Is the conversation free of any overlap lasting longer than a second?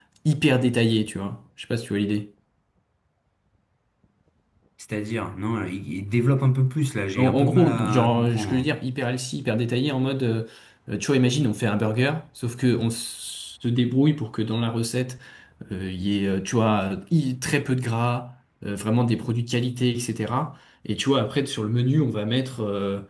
No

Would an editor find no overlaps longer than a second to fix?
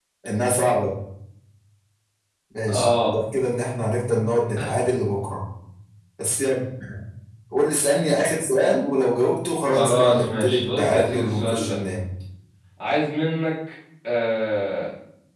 No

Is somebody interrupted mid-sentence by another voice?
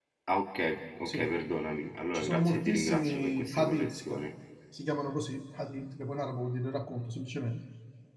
Yes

